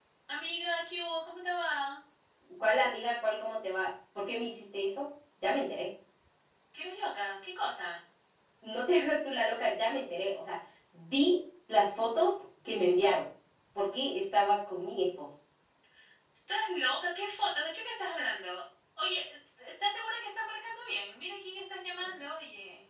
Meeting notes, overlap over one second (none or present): none